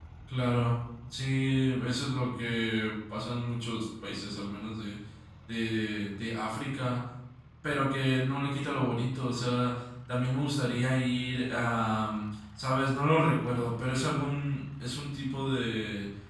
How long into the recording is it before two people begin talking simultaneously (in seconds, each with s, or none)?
none